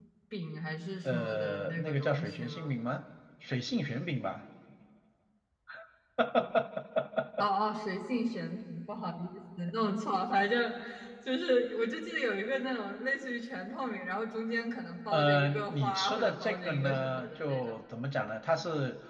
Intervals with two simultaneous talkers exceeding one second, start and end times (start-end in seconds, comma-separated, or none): 1.0-2.8, 15.1-17.8